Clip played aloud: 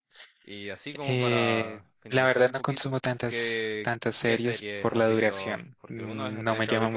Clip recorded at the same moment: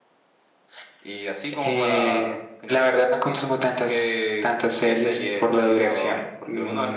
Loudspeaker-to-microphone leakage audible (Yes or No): Yes